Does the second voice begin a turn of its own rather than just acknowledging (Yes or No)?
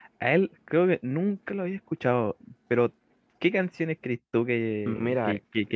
No